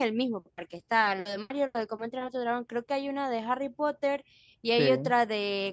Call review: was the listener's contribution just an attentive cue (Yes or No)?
Yes